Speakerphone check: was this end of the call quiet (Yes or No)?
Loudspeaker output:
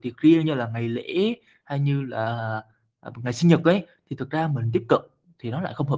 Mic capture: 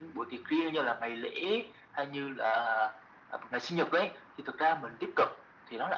Yes